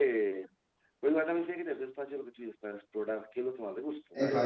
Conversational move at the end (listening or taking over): taking over